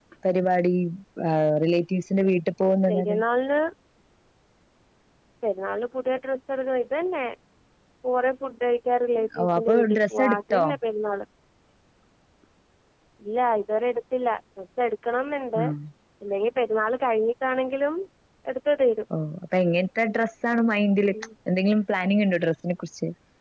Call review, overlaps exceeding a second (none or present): present